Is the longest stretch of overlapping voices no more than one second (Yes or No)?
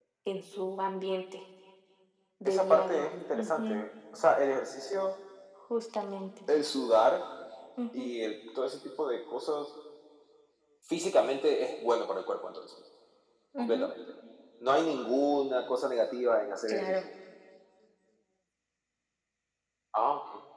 No